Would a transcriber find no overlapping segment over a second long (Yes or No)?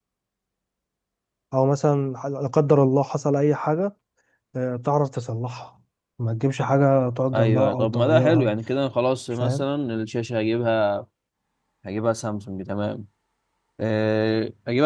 No